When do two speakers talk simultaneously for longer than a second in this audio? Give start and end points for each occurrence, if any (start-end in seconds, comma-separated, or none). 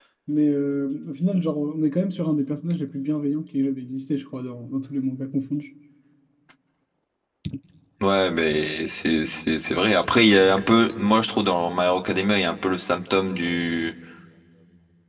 none